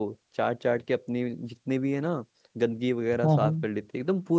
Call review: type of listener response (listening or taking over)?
listening